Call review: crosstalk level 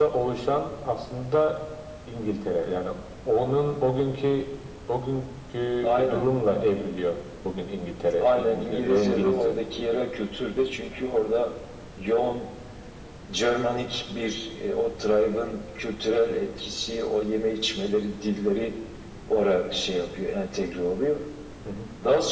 present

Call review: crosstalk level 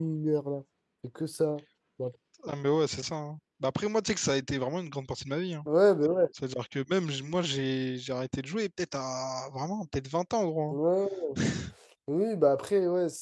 none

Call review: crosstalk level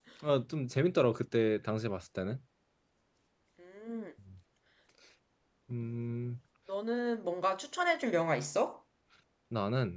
none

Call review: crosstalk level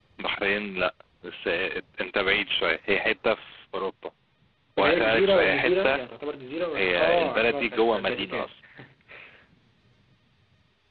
present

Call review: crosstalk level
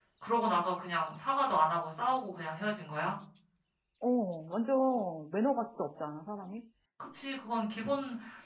none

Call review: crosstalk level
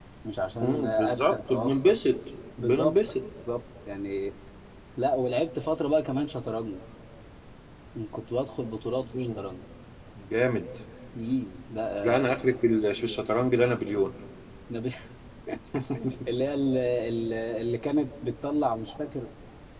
present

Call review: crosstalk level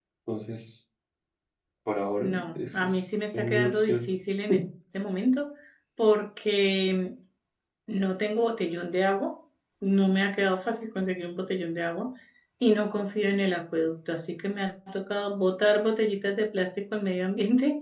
present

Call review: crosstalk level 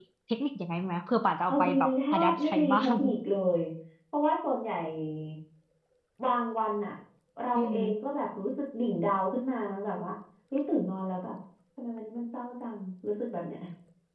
present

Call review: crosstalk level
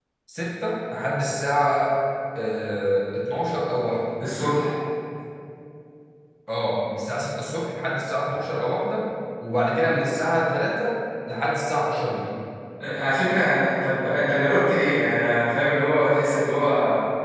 none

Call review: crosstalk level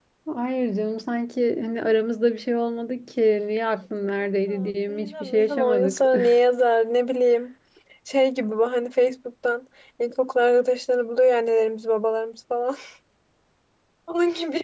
present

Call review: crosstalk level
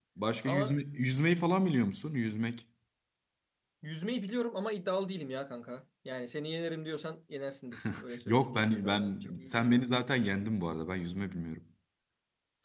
present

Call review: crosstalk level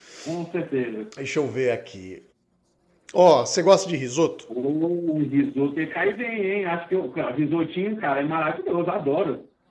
none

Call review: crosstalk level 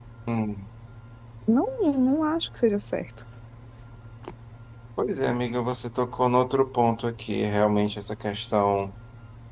none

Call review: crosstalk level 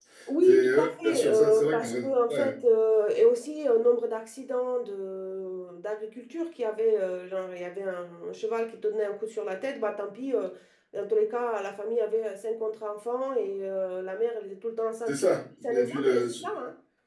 present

